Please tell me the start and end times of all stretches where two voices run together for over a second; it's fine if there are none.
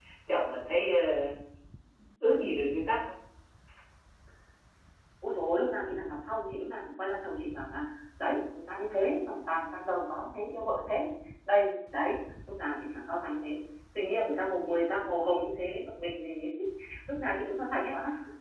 none

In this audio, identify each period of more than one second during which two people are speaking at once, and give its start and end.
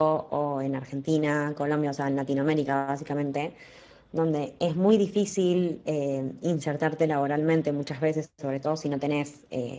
none

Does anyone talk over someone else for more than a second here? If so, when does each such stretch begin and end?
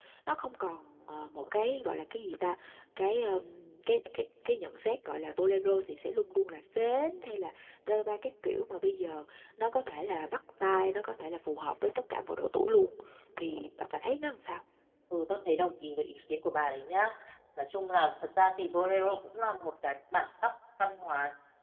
none

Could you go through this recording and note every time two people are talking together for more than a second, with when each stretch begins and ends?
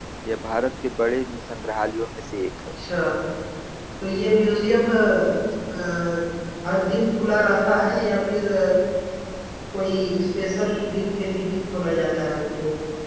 none

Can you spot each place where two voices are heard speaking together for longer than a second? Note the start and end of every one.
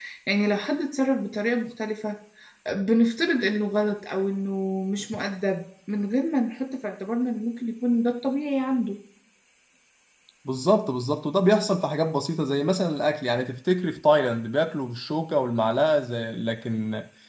none

